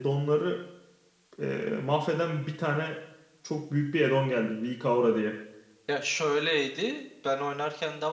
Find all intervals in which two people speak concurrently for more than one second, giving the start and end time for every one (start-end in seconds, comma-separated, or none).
none